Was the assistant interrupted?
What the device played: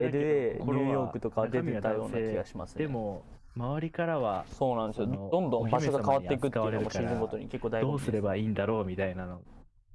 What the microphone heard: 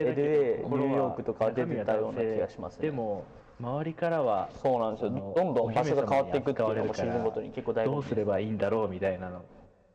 No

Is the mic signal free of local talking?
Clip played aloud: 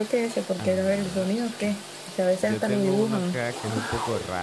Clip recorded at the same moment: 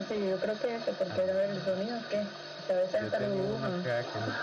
Yes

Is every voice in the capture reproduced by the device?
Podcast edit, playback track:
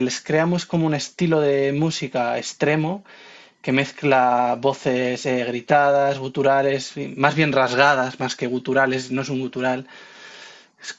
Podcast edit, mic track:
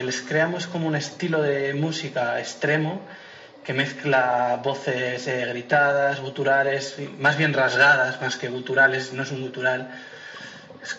Yes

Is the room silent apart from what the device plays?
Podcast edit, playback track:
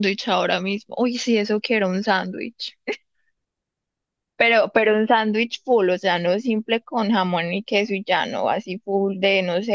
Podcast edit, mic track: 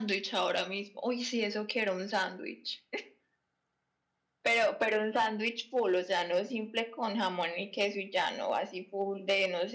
Yes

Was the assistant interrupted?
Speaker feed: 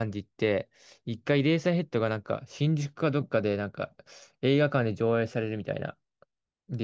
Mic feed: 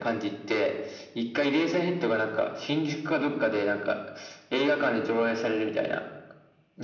No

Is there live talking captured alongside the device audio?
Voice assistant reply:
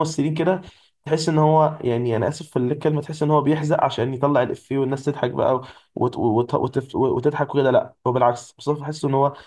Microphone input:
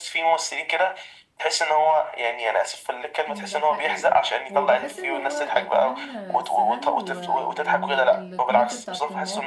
Yes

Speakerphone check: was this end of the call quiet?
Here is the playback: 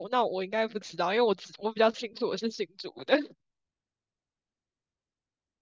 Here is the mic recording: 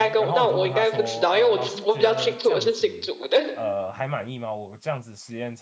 No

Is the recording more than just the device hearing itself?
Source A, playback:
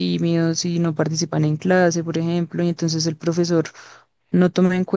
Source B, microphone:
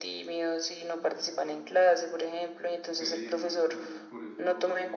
Yes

